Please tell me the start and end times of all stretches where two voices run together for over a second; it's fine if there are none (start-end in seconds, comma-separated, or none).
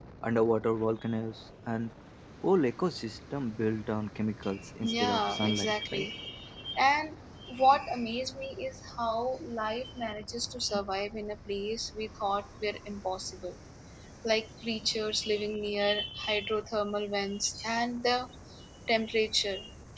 4.8-6.0